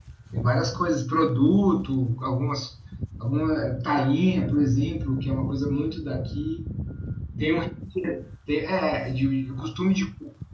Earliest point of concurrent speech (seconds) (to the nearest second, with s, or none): none